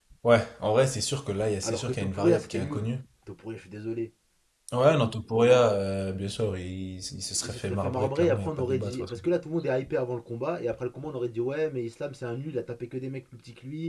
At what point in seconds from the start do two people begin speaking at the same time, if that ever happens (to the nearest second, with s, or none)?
2 s